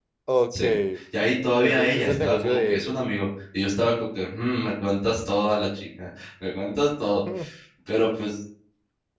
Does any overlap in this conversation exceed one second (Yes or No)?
Yes